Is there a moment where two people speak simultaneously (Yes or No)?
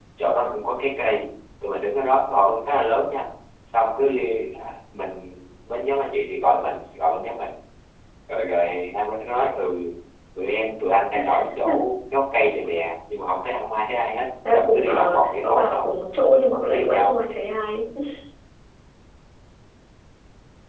Yes